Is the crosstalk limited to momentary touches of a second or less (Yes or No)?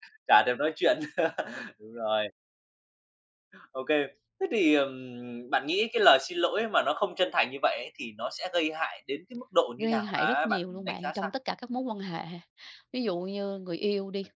No